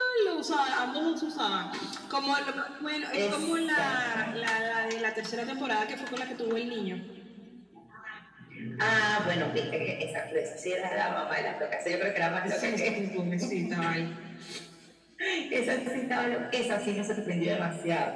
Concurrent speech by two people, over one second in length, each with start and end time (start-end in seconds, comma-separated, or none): 3.1-4.3